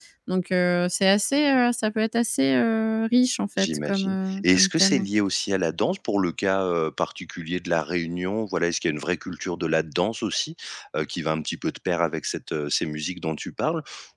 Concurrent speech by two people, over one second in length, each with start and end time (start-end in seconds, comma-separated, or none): 3.6-5.1